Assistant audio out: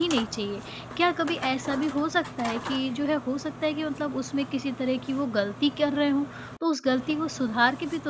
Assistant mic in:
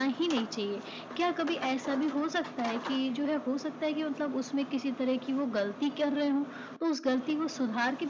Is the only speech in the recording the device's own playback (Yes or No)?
Yes